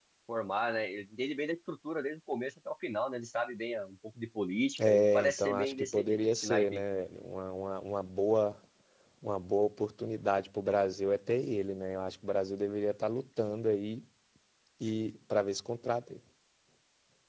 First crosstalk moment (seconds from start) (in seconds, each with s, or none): 4.8 s